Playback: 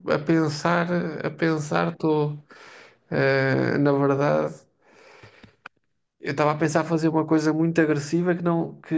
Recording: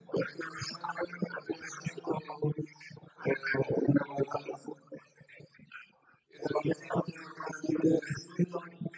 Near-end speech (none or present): none